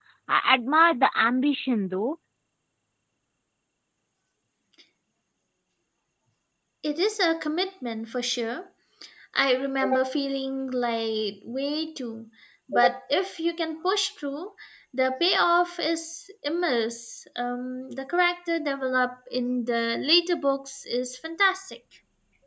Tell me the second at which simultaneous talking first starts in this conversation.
none

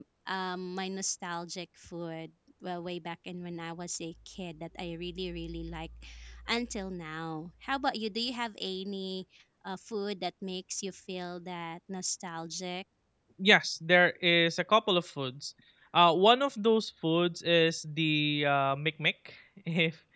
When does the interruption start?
none

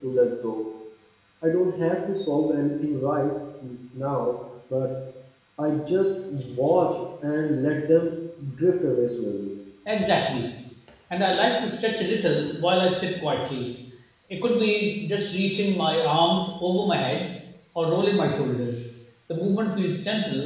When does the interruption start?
none

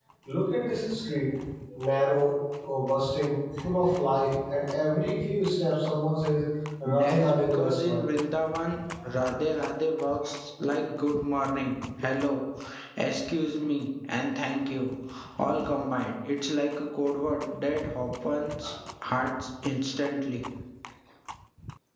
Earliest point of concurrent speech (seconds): 6.8 s

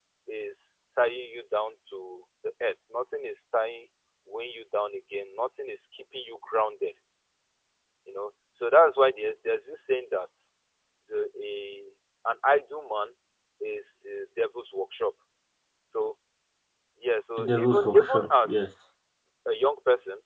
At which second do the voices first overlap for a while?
17.4 s

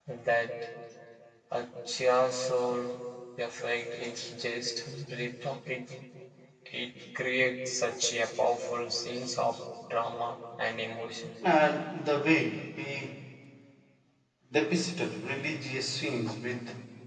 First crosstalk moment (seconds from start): none

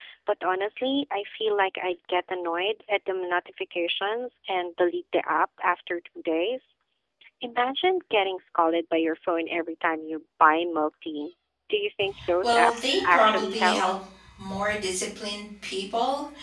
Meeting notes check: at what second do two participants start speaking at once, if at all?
12.4 s

